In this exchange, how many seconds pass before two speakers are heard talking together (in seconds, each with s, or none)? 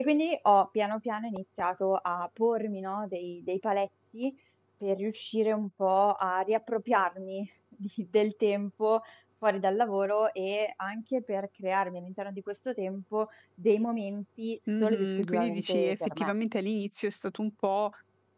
14.7 s